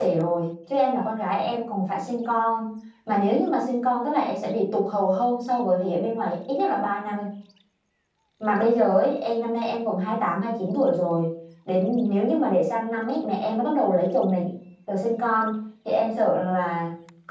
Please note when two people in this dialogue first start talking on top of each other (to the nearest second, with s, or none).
none